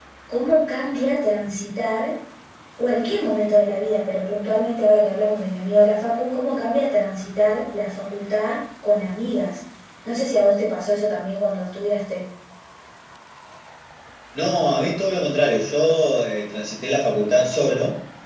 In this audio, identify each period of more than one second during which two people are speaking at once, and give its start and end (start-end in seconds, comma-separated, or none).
none